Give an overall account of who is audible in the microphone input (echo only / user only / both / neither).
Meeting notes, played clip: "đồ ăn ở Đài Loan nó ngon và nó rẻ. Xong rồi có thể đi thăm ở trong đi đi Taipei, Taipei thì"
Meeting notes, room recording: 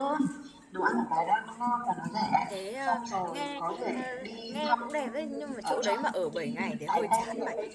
both